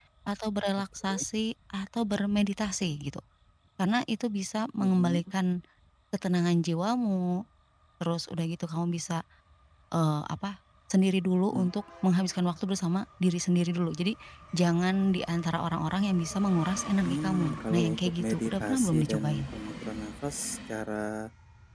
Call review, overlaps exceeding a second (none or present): present